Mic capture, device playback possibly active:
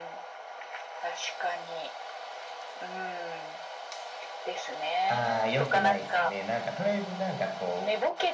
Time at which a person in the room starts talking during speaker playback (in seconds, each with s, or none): 5.1 s